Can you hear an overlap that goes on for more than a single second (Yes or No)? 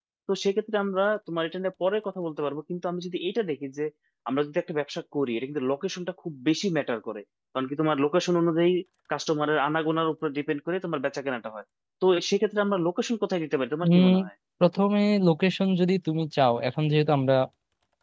No